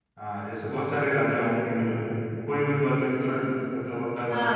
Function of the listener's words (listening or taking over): taking over